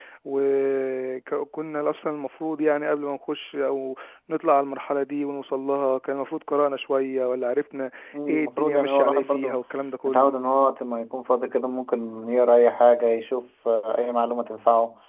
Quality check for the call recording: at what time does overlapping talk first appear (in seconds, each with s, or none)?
8.3 s